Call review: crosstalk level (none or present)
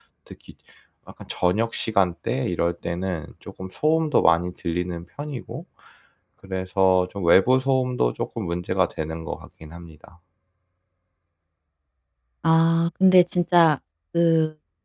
none